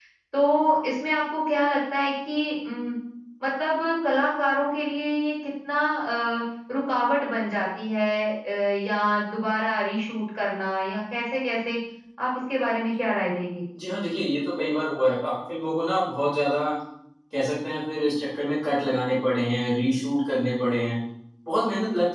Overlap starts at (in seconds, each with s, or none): none